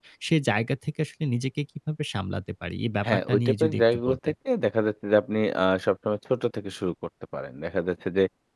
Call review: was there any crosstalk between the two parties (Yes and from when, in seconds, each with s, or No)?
Yes, from 3.0 s